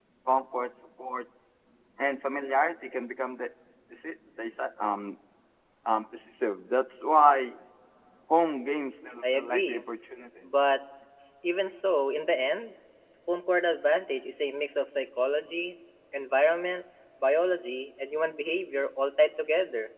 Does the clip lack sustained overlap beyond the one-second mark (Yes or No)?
Yes